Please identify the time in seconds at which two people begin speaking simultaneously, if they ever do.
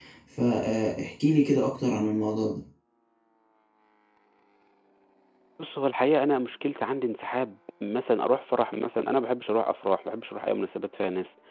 none

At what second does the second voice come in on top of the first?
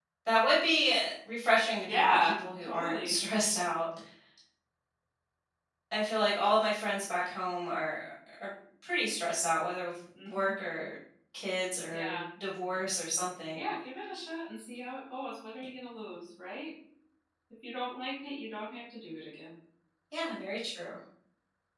1.9 s

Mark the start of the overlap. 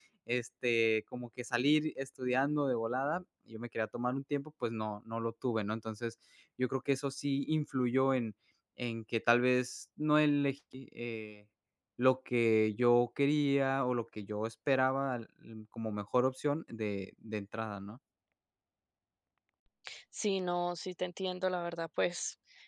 none

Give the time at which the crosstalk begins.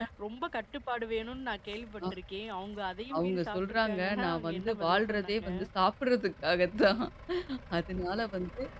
3.1 s

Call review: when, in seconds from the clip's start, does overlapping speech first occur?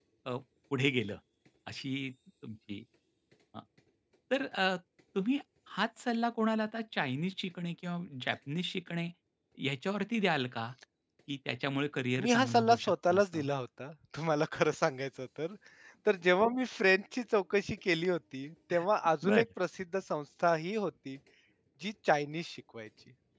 12.2 s

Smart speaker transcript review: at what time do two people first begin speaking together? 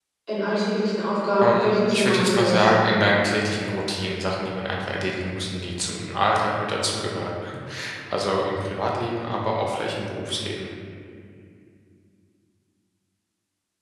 1.4 s

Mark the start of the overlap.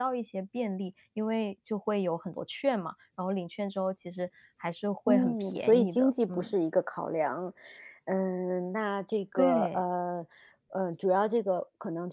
5.1 s

